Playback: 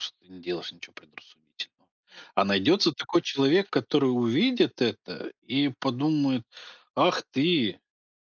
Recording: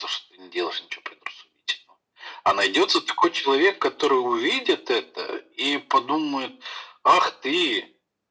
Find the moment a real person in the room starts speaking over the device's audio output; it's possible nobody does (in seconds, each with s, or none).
none